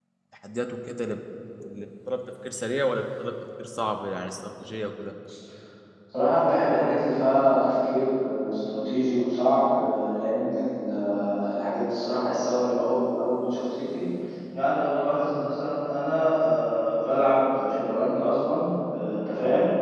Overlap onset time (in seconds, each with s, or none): none